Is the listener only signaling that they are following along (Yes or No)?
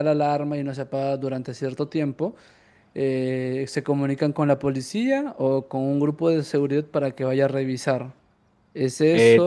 Yes